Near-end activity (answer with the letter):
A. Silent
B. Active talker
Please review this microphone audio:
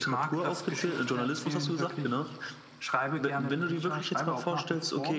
A